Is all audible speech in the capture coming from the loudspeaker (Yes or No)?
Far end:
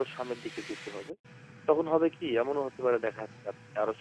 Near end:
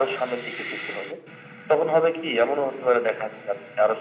Yes